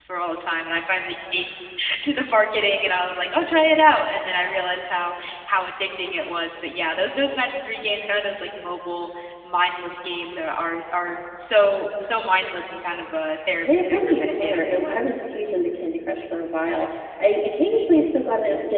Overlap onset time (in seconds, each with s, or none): 13.7 s